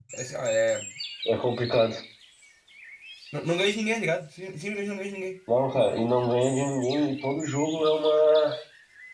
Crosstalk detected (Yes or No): No